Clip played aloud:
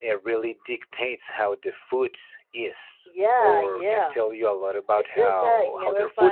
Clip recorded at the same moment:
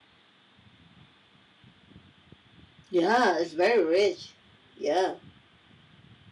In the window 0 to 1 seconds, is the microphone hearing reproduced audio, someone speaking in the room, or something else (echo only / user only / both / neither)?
neither